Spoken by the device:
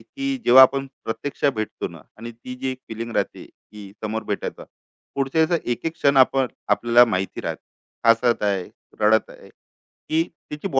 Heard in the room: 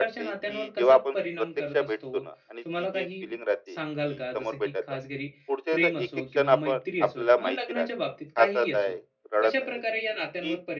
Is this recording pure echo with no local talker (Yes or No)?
No